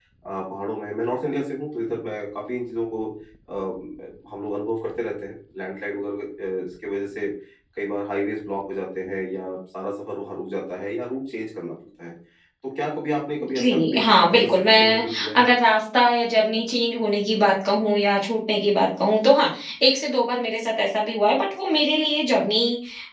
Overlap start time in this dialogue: 13 s

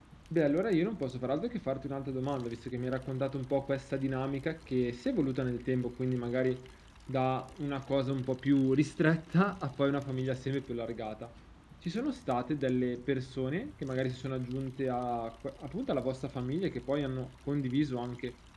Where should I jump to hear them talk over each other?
none

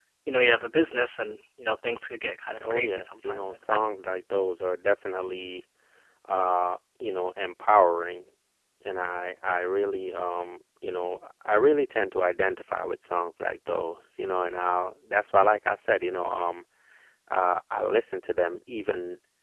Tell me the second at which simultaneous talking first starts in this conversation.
3 s

